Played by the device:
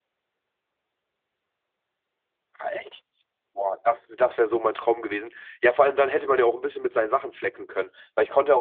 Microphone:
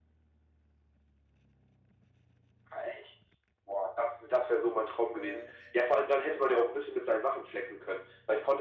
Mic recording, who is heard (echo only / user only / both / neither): both